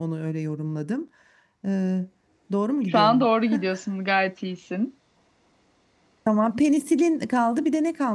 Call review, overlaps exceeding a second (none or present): none